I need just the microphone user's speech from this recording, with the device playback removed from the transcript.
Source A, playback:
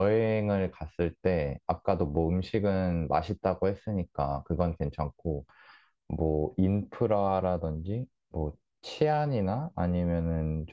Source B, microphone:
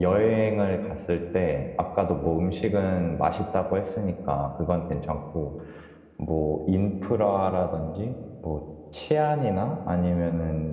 none

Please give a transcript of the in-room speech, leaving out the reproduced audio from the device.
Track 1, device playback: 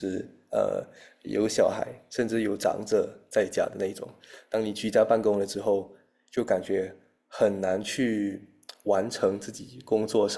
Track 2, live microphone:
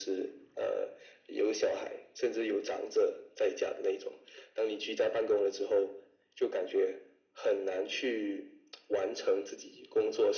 none

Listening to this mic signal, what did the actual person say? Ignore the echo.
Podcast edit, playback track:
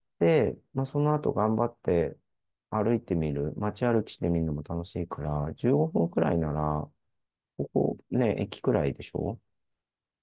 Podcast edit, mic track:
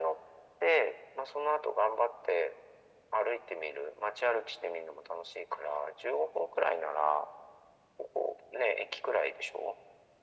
none

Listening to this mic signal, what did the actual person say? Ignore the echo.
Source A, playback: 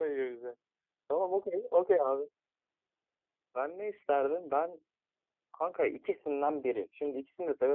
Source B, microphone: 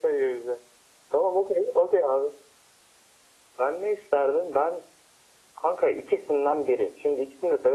none

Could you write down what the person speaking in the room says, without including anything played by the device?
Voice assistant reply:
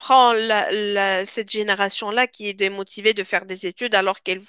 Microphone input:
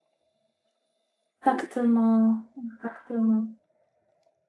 Exactement, exactement.

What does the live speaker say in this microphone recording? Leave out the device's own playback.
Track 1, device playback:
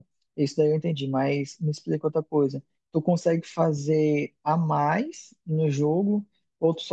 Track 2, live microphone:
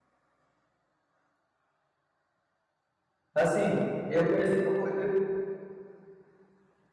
Assim, eu conheci, eu conhe- eu-

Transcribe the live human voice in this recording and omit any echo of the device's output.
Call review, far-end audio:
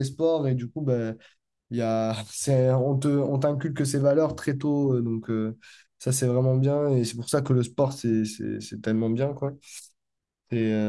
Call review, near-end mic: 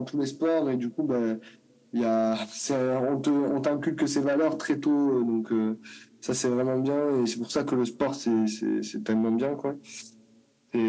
none

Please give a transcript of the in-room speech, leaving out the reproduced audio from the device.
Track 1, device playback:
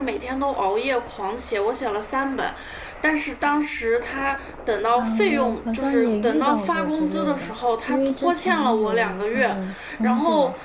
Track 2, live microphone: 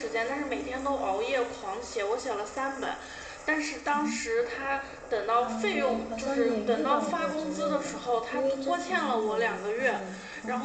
嗯

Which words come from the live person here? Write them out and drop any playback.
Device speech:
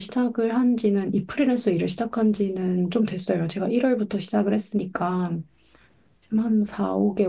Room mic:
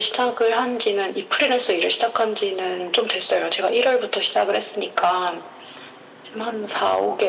none

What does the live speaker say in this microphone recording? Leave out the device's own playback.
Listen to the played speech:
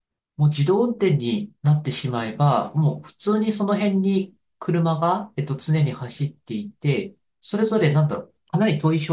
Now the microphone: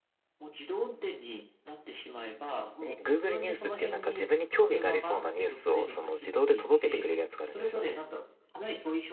に Google ニュースっていうなんか自分に興味がありそうなニュースをその自動で届けてくれるやつがあるんですよね。

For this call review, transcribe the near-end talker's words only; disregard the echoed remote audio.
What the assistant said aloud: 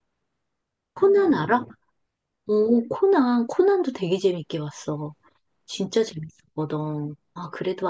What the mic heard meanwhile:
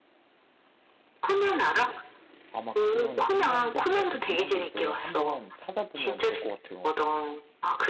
아마 그런 인형들이라든지 이런 거 있어서 한번 찾아보면 될 것 같아요.

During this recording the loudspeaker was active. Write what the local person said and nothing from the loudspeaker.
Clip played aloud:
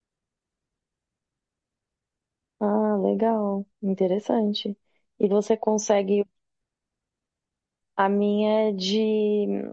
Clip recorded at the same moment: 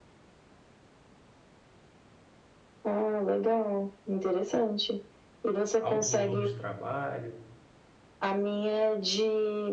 alto volume de trabalho,

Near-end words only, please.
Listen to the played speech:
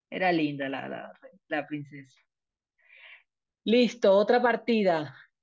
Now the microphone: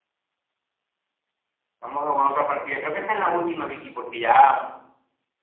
Vamos a jugar otra partida. Creo que esta es la última, Vicky, porque ya

